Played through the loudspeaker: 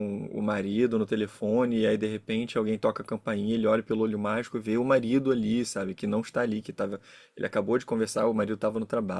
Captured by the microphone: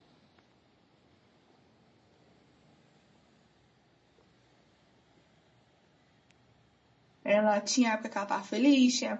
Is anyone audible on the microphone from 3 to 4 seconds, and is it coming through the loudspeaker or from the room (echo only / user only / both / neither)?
neither